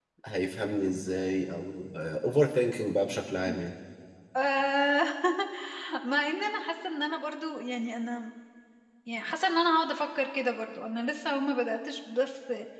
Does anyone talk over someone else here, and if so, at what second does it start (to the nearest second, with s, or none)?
none